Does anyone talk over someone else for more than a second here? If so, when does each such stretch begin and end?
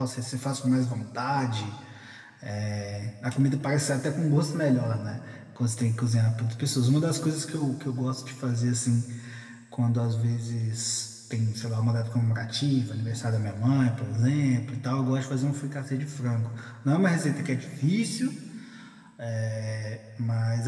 none

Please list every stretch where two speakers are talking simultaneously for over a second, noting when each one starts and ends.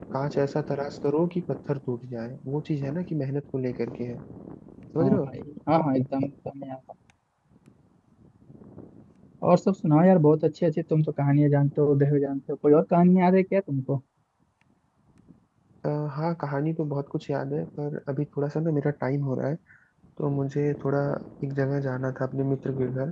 none

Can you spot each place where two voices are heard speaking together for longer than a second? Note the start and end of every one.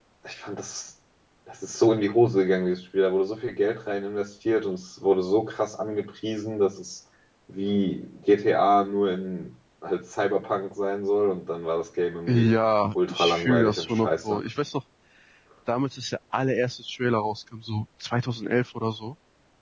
13.1-14.4

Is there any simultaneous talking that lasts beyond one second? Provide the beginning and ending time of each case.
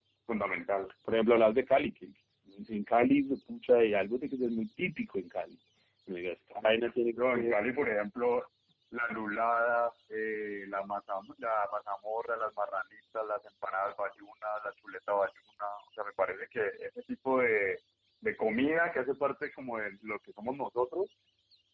none

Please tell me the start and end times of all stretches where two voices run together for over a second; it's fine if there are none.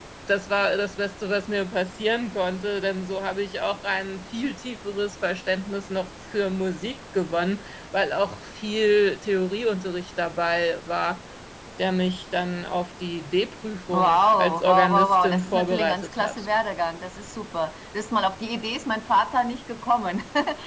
13.9-16.4

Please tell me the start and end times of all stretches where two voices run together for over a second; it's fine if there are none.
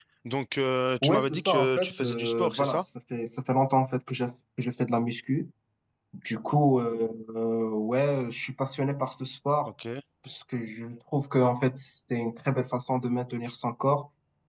1.0-2.9

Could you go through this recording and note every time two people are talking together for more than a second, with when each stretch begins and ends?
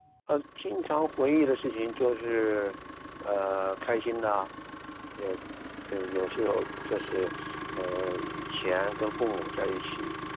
none

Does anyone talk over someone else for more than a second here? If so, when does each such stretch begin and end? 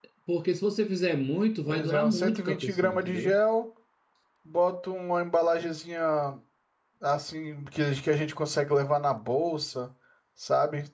1.6-3.4

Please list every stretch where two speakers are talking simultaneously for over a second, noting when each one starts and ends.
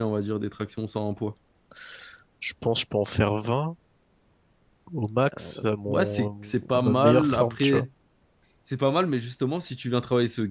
5.9-7.9

